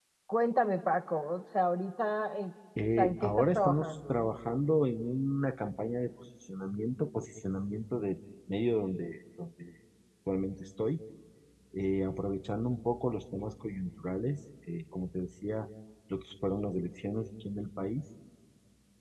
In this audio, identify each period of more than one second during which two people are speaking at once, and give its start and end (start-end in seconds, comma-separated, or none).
3.0-4.2